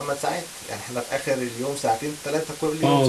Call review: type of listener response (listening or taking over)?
taking over